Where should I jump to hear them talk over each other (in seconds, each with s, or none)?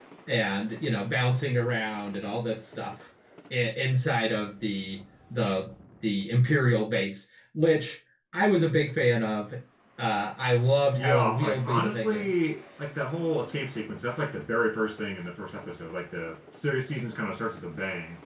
10.9 s